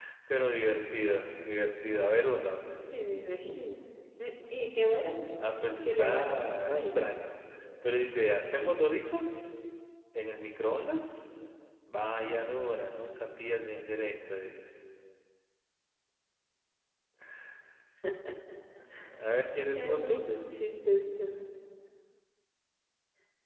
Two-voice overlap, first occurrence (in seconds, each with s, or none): 5.8 s